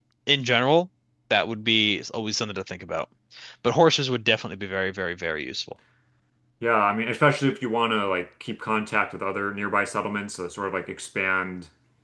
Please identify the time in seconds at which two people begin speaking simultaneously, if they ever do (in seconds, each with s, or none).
none